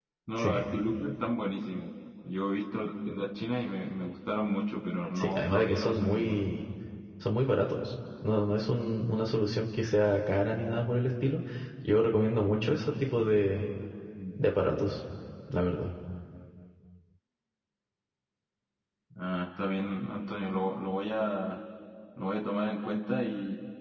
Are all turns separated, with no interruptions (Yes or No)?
No